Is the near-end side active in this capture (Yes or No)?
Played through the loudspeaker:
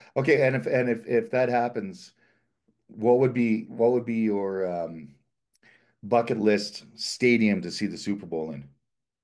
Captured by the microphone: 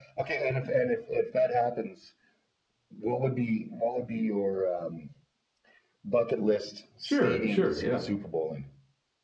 Yes